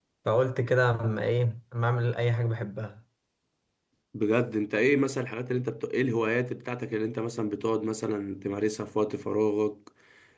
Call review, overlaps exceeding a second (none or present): none